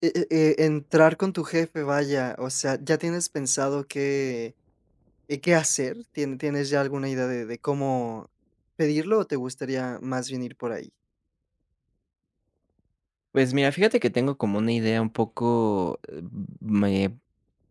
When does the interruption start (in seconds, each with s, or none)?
none